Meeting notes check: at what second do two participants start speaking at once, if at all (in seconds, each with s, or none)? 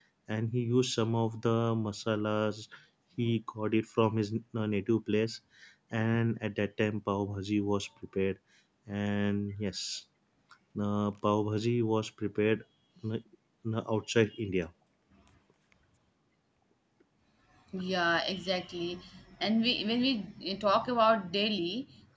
none